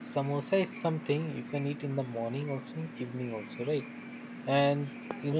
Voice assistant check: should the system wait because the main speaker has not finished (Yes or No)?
Yes